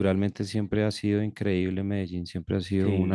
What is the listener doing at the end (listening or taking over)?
listening